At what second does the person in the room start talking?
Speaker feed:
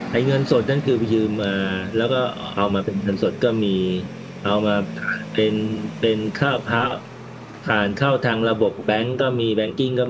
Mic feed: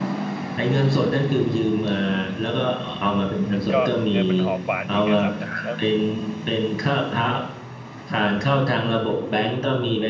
3.5 s

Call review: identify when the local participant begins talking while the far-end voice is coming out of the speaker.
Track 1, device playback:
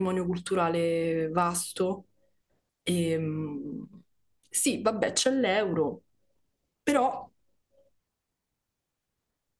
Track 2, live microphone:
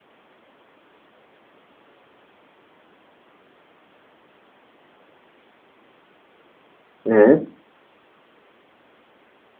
7.0 s

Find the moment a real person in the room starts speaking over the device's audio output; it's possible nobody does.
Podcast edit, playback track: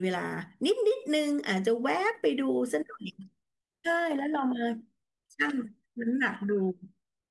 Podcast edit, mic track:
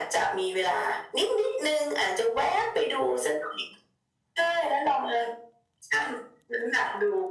none

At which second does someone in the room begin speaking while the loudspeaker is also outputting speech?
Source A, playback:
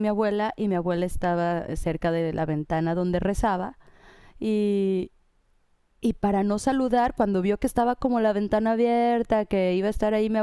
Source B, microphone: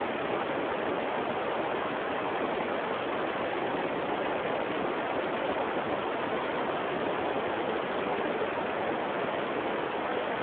none

